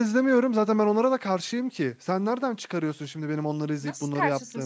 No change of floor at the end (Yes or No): No